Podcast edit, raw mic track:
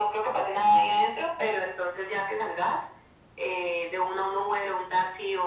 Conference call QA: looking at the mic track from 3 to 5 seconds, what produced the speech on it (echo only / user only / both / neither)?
echo only